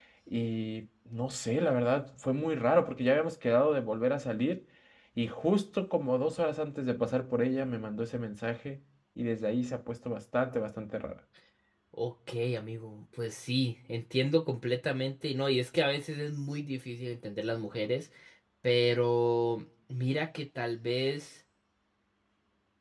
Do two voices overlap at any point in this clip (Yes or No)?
No